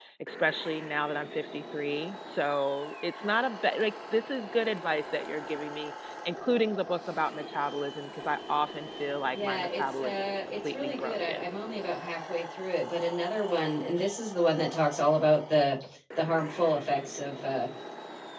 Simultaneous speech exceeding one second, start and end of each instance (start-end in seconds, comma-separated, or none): 9.3-11.4